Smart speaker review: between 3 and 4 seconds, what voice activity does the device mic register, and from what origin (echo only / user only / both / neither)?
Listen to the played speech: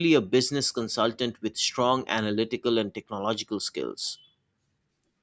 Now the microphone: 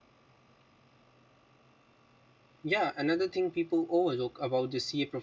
user only